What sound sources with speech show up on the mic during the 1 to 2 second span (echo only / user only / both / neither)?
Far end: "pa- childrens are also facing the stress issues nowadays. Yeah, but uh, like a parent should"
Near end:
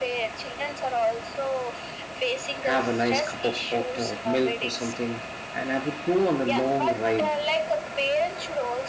echo only